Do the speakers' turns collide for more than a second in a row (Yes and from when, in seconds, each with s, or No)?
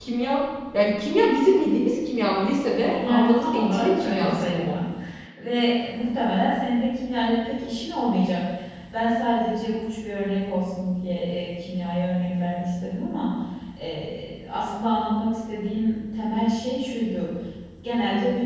Yes, from 2.9 s